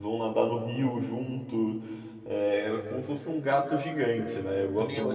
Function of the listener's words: taking over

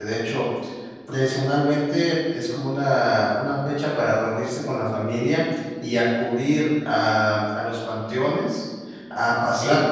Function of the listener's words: listening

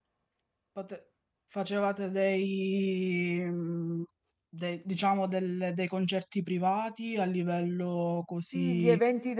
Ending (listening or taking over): taking over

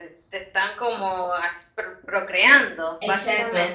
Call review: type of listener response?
taking over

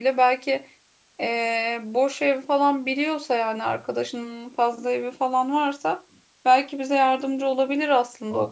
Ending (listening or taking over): taking over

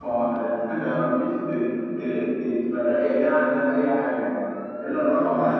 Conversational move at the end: listening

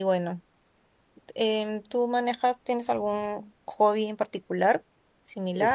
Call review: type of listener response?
taking over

